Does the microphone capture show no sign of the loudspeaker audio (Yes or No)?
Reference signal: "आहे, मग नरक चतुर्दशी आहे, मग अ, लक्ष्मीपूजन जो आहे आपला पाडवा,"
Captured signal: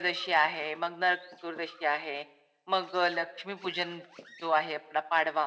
No